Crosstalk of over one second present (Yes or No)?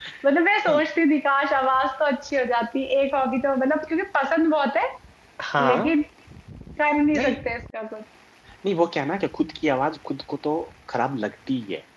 No